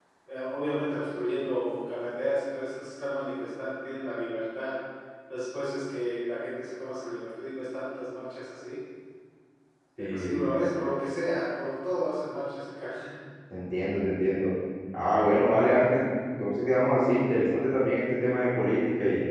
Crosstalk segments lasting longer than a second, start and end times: none

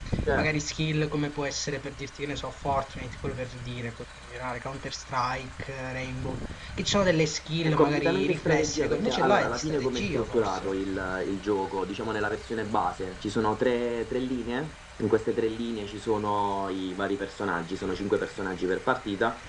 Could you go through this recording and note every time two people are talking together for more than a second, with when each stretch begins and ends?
7.6-10.7

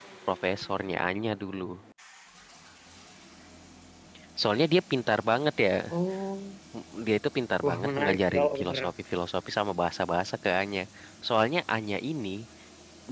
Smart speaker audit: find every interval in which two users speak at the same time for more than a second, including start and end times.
7.6-8.9

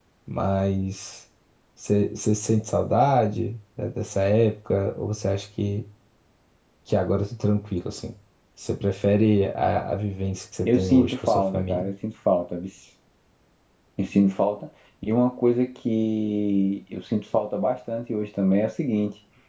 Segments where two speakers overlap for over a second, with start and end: 10.7-11.9

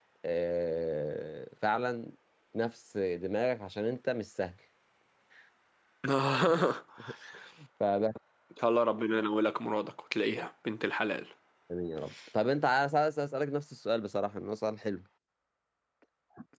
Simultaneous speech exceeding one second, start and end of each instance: none

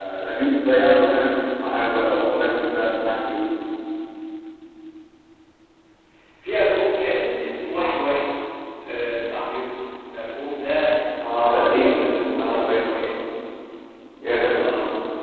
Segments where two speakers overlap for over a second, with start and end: 11.2-12.8

